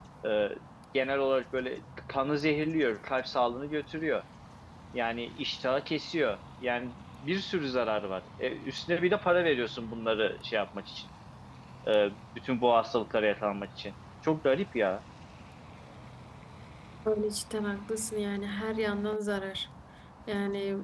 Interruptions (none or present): none